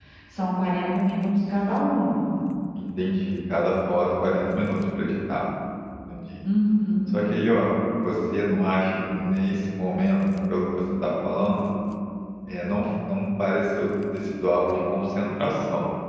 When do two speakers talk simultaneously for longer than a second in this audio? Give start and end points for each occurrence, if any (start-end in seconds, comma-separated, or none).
none